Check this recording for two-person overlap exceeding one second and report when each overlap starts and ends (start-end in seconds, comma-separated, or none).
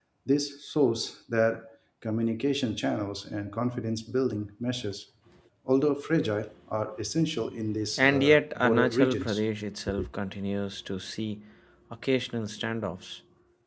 8.0-9.4